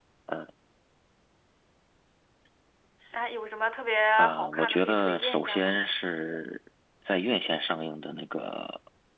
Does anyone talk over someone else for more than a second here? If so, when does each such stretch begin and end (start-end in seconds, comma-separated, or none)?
4.2-5.7